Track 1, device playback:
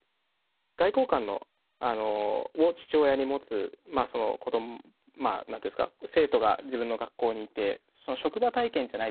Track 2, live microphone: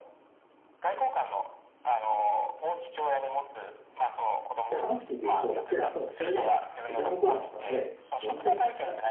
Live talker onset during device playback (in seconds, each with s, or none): 4.7 s